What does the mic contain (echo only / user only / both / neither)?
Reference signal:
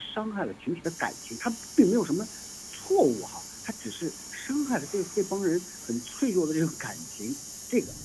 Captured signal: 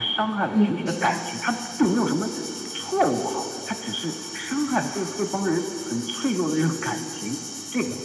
both